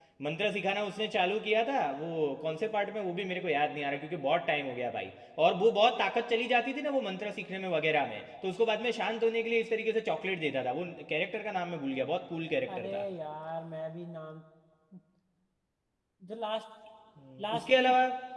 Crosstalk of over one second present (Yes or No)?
No